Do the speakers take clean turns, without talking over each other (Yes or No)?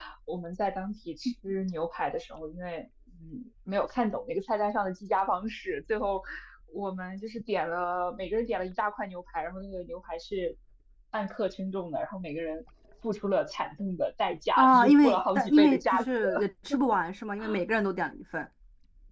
No